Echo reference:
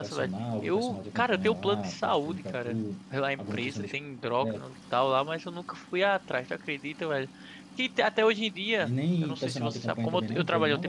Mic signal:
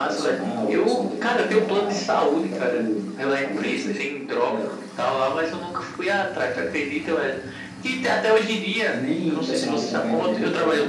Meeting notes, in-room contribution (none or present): none